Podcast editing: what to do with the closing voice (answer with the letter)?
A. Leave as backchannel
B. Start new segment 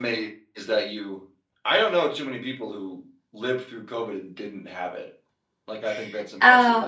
B